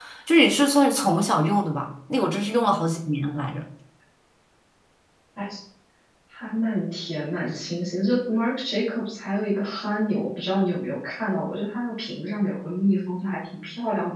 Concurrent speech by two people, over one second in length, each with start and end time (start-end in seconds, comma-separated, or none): none